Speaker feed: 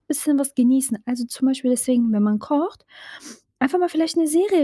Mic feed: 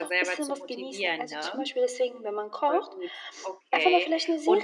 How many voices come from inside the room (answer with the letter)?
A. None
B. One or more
B